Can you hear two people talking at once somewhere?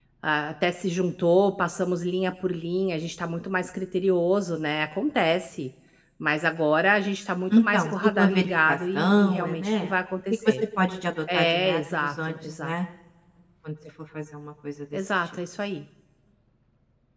Yes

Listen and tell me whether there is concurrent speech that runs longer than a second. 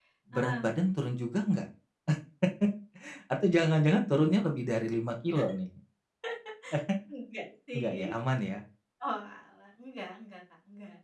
No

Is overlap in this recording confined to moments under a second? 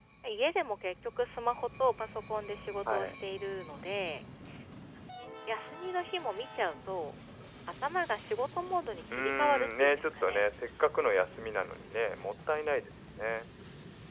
No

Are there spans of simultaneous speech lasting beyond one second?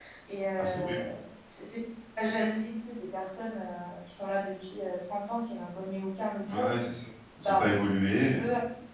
No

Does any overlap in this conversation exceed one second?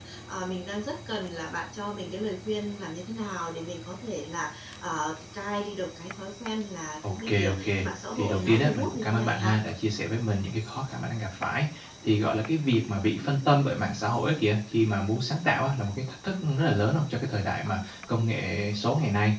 Yes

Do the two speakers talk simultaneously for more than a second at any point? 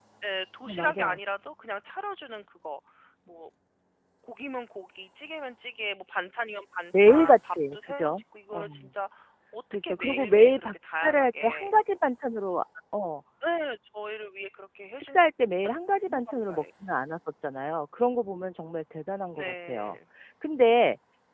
Yes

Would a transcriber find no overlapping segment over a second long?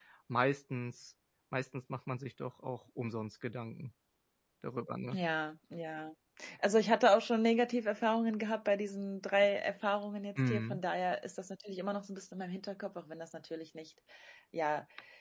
Yes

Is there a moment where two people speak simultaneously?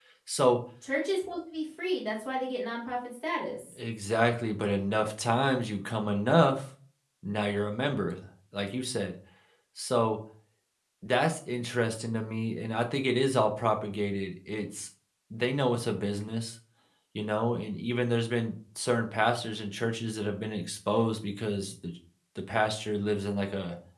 No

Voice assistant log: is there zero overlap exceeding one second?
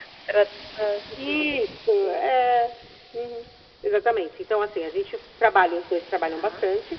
Yes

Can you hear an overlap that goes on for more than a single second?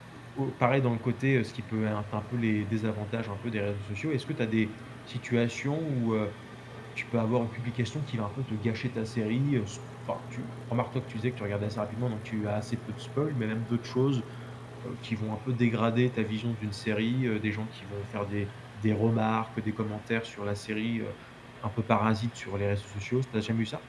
No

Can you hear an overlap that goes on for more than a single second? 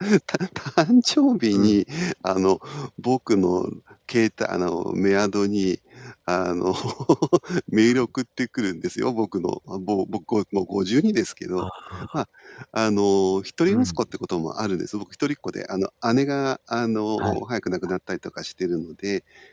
No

